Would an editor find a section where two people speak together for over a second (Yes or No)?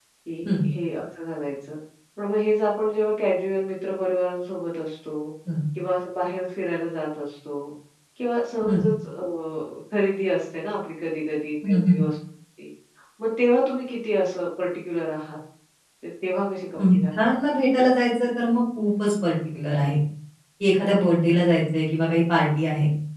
No